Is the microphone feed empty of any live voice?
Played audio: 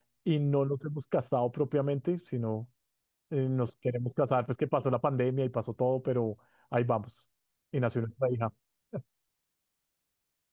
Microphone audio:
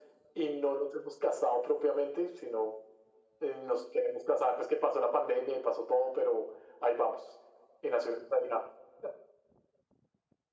Yes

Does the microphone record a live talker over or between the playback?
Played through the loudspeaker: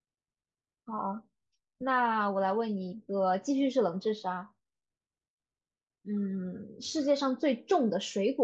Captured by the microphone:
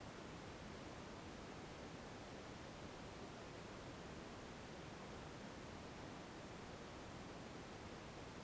No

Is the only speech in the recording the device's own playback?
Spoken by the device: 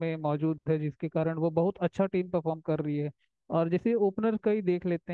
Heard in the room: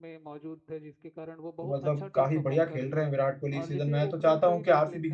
No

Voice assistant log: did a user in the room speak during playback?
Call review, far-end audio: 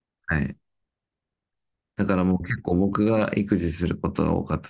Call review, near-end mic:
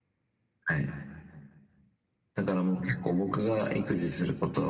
No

